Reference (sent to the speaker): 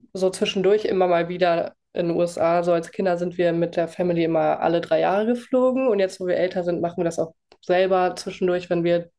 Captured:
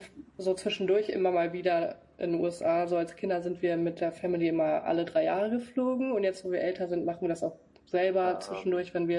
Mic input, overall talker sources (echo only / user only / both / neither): both